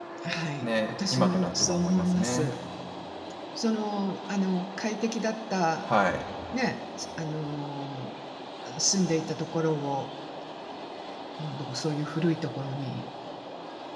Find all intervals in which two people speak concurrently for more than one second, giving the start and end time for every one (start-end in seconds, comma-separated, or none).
0.6-2.5